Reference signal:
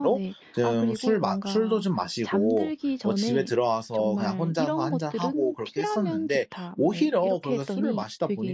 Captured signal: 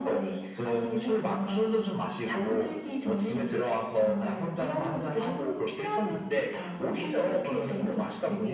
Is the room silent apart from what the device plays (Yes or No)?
Yes